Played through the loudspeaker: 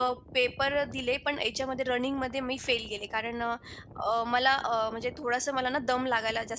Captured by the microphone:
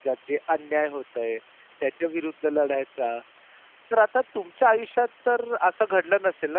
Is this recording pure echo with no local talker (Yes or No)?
No